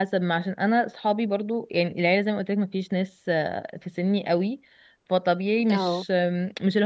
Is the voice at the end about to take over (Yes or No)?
No